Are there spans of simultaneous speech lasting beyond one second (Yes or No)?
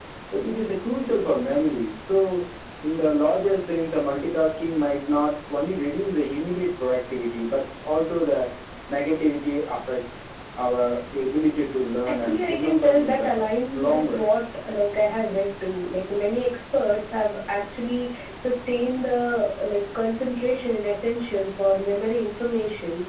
Yes